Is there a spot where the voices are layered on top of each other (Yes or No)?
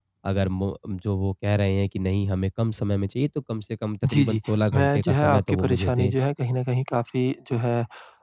Yes